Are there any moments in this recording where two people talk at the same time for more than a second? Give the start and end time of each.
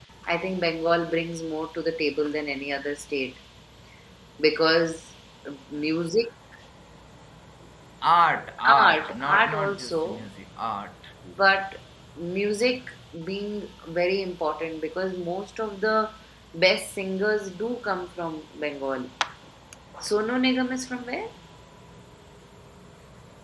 8.8-10.2

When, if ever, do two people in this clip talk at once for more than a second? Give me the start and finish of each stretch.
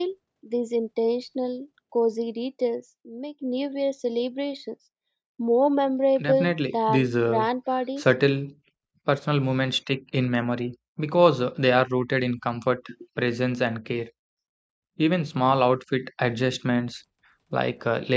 6.2-7.5

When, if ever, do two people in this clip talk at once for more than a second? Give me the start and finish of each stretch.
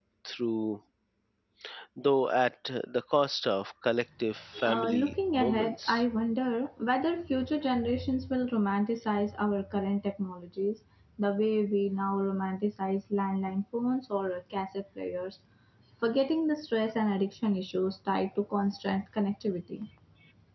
4.7-6.0

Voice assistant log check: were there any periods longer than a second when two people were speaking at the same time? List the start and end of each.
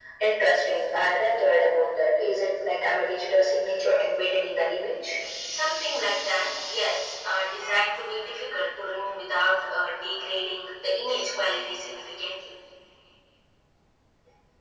none

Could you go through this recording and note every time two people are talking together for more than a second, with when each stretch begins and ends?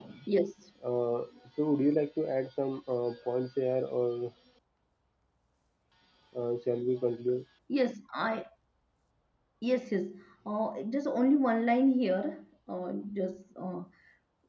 none

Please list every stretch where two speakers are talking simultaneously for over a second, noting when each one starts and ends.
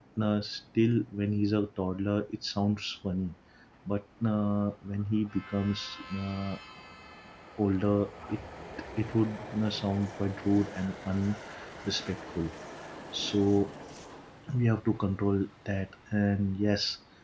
none

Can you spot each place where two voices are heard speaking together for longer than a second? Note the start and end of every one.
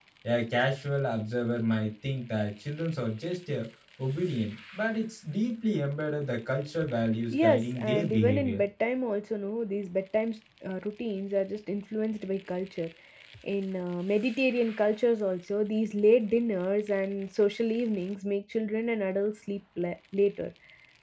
7.3-8.6

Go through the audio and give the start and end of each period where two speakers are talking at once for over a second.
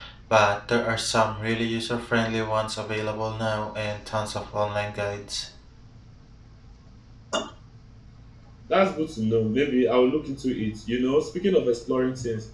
none

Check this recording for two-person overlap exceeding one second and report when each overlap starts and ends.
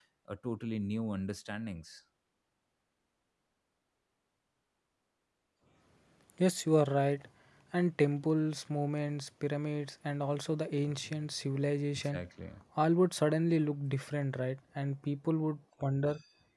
none

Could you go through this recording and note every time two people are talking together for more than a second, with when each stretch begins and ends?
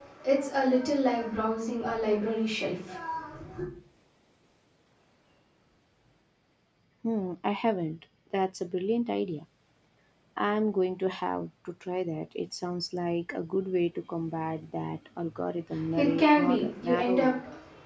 16.0-17.3

